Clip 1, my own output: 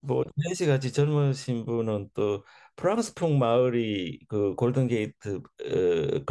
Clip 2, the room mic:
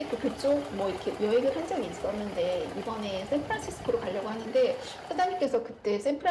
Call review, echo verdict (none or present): none